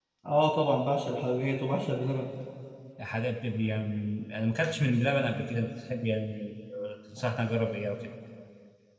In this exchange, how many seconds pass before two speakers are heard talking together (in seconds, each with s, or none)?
none